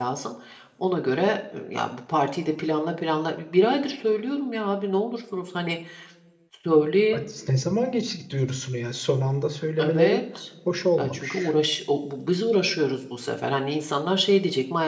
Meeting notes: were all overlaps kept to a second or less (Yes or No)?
Yes